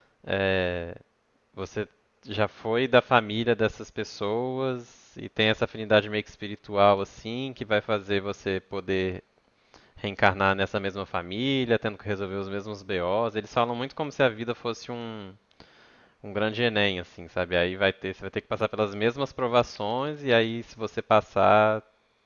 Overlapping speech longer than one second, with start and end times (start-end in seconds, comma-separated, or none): none